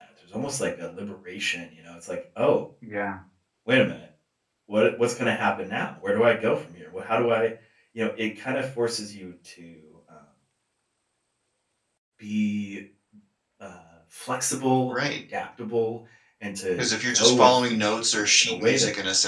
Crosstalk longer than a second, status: present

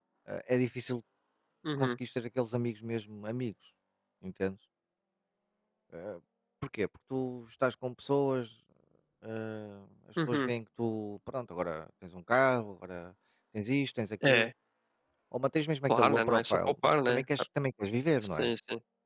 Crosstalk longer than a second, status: present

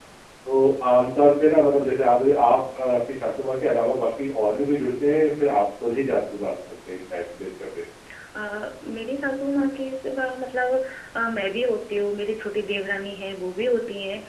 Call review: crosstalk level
none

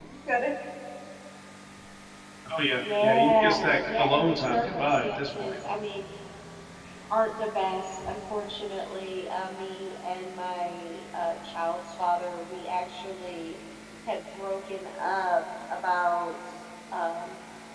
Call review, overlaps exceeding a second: present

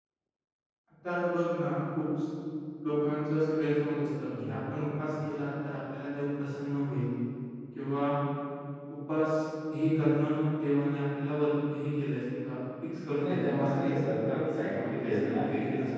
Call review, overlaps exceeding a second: present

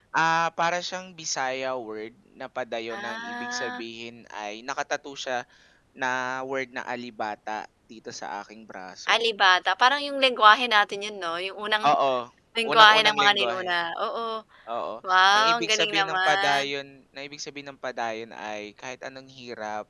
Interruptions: present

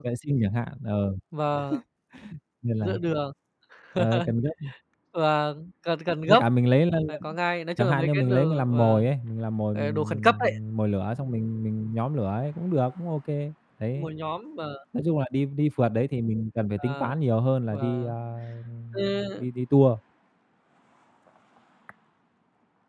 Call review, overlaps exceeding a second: present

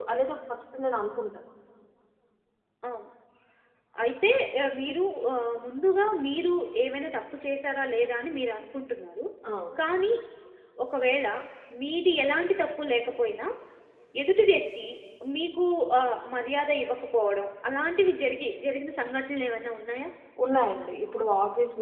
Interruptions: none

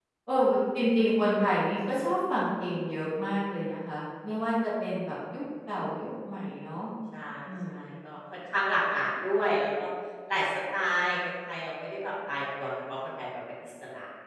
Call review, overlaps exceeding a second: none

